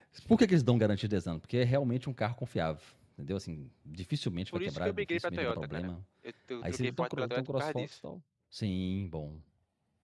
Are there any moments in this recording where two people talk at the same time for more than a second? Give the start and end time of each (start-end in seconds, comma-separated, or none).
4.5-5.9, 6.7-8.0